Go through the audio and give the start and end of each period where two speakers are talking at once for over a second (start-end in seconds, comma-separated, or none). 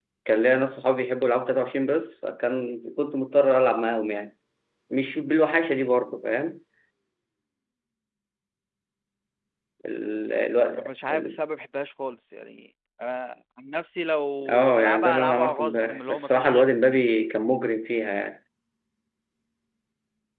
14.5-16.8